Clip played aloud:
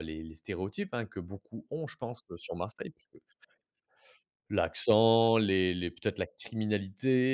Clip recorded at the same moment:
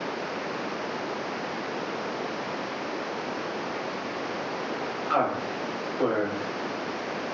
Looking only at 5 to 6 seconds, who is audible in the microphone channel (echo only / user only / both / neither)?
user only